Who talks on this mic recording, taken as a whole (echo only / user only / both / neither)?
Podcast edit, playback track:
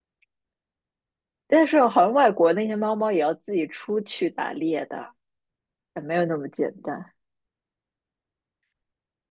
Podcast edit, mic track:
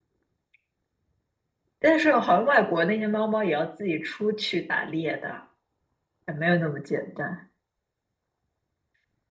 echo only